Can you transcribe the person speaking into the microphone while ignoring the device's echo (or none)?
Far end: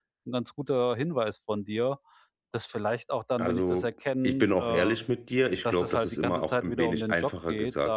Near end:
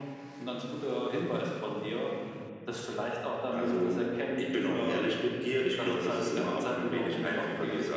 none